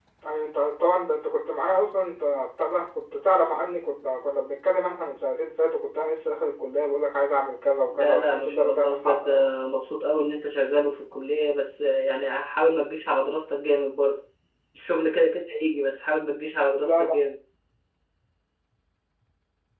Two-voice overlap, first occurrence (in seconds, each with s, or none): 7.9 s